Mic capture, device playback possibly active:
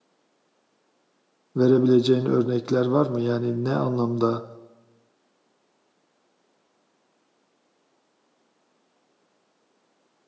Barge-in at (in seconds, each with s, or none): 1.6 s